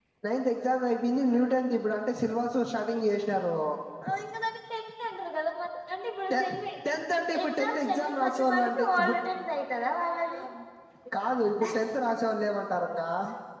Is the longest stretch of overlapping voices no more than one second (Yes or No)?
No